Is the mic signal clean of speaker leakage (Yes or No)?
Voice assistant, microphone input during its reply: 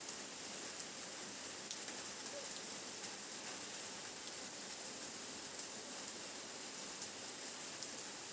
Yes